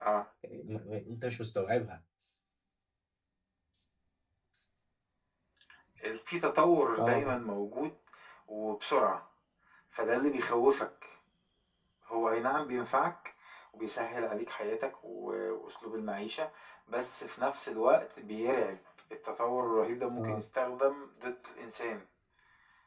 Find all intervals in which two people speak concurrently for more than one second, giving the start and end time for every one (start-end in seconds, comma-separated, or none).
none